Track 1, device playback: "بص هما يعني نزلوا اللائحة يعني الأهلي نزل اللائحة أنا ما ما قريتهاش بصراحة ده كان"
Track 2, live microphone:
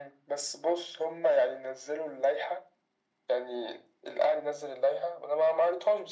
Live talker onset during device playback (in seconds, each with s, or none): none